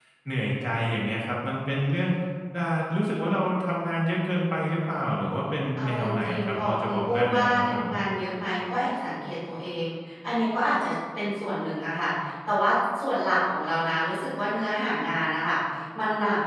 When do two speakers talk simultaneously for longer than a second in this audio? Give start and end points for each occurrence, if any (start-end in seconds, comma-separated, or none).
5.8-7.9